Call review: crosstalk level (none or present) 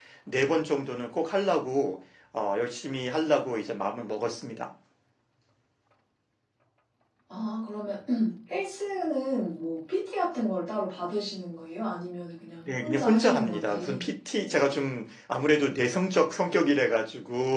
present